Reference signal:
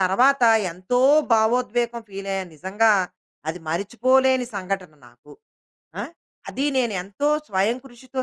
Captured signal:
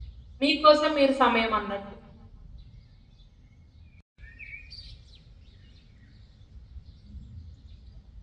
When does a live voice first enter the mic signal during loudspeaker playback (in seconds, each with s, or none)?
0.4 s